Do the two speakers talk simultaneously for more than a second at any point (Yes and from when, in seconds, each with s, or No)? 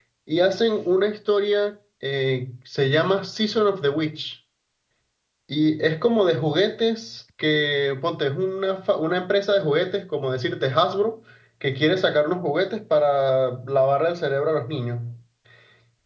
No